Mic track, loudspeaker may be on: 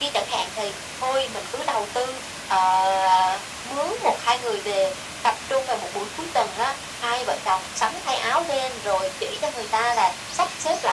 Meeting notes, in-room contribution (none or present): none